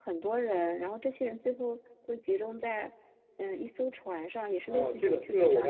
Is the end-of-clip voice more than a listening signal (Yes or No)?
Yes